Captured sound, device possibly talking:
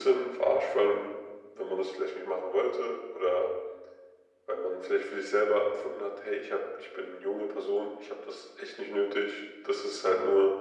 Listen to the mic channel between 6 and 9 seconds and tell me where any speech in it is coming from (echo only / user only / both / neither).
echo only